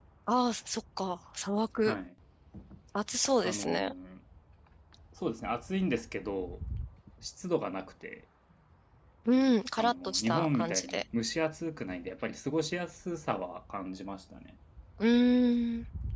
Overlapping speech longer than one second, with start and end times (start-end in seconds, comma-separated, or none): 9.8-11.0